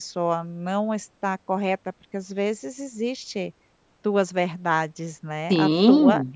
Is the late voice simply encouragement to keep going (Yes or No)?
No